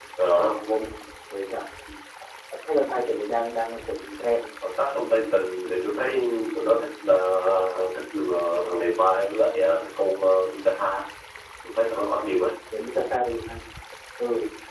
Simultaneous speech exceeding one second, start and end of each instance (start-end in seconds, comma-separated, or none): none